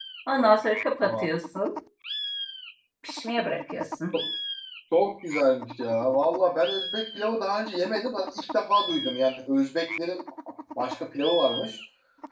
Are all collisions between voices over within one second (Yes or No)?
Yes